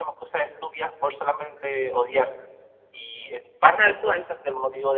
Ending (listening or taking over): listening